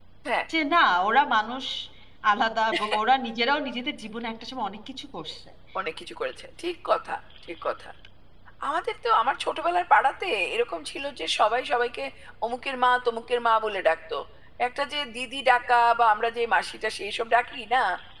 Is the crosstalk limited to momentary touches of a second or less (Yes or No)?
Yes